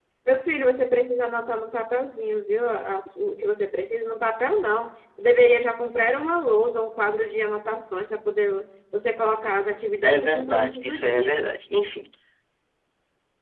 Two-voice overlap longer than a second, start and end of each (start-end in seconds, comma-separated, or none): 10.0-11.4